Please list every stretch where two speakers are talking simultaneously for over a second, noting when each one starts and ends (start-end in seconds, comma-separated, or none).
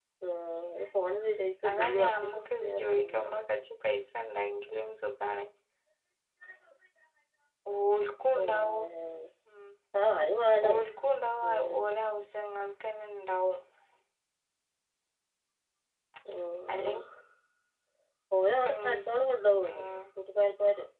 1.7-3.3